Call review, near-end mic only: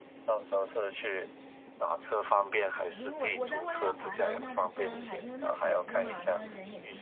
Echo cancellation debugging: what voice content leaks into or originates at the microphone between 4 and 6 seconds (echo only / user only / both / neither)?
both